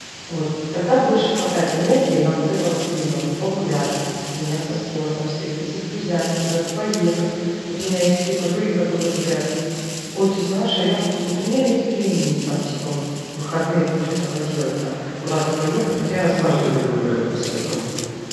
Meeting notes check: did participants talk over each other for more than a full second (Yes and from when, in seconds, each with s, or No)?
No